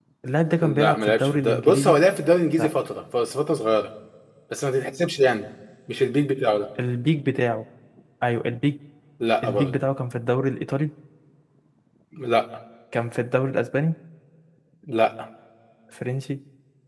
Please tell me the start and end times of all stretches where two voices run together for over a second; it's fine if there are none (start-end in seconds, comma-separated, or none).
0.6-2.0